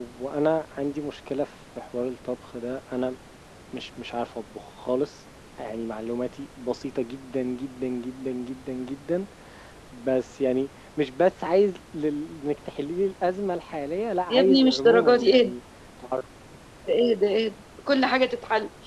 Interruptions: present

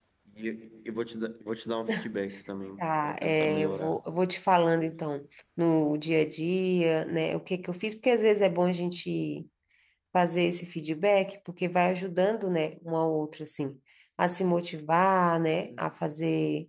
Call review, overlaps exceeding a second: present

